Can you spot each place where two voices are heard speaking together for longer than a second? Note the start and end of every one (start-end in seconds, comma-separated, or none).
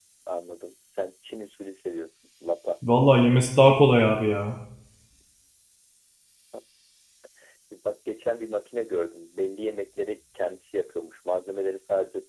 none